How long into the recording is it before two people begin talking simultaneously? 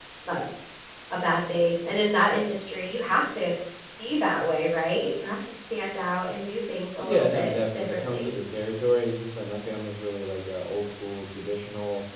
7.0 s

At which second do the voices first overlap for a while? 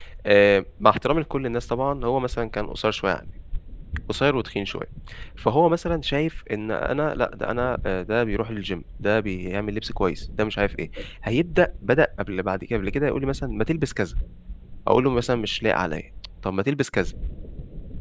none

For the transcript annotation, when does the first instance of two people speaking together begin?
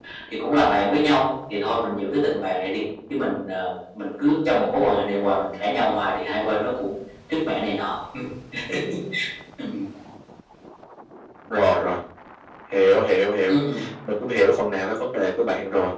none

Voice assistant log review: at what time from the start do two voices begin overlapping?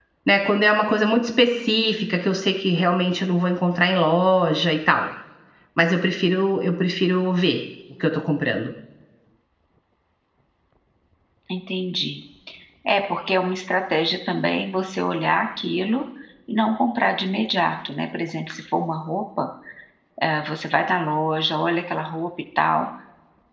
none

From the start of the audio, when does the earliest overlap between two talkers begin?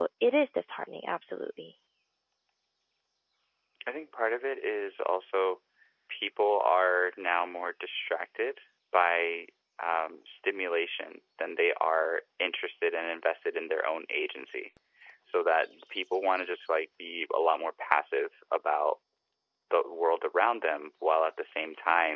none

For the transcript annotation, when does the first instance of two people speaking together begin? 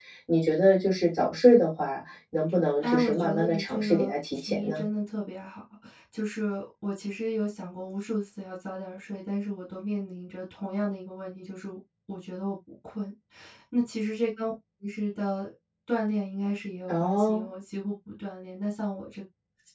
2.8 s

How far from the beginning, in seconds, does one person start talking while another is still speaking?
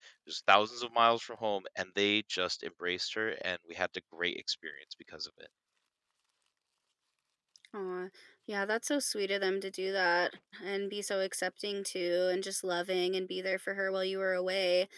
none

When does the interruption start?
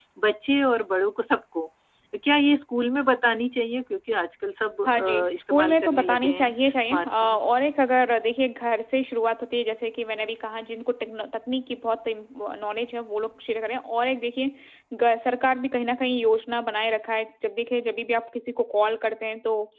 4.8 s

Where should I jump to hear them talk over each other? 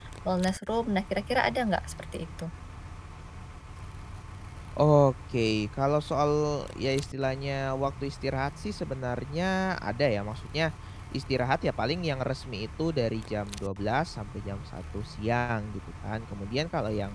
none

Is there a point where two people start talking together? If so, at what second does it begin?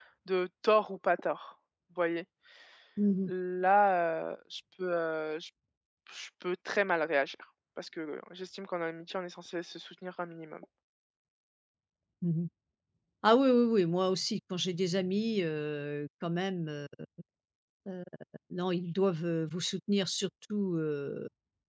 none

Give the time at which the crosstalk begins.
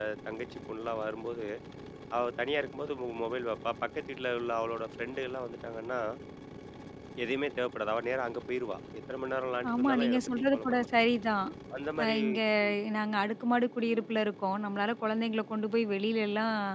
9.7 s

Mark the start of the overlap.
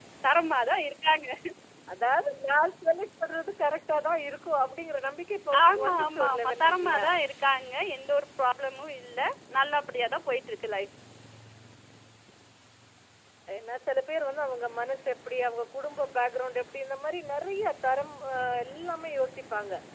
5.5 s

